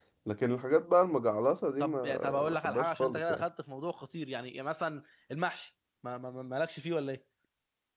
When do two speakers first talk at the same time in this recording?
1.8 s

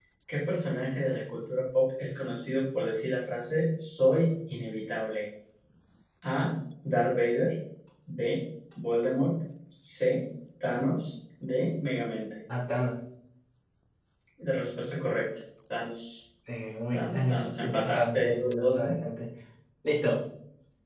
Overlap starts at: 16.9 s

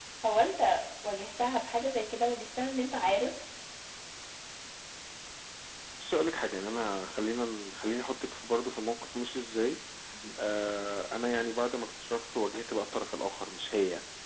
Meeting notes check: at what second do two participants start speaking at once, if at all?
none

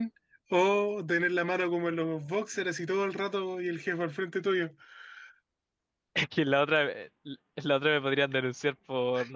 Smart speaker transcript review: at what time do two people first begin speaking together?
none

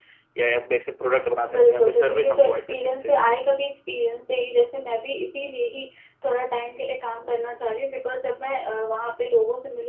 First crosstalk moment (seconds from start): 1.4 s

